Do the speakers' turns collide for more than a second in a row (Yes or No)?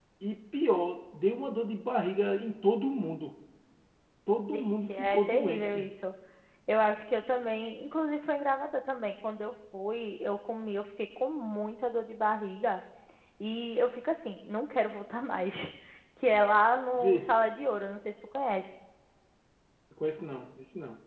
Yes